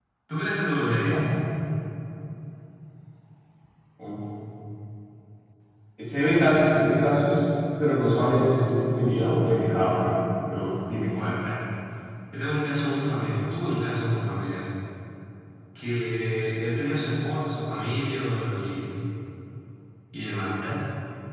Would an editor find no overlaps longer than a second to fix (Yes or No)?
Yes